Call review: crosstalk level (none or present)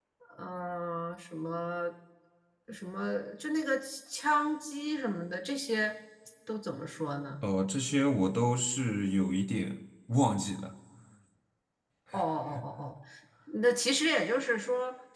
none